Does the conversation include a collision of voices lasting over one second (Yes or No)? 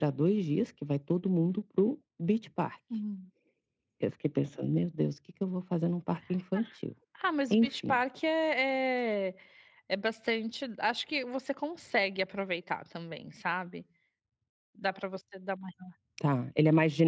No